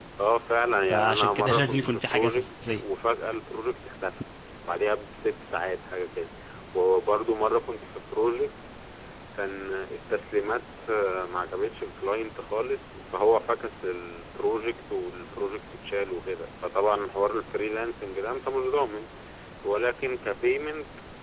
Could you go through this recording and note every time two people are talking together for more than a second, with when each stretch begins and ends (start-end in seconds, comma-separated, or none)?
0.9-2.8